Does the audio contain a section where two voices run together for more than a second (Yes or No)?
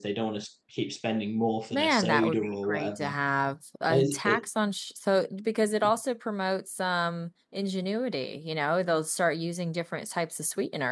Yes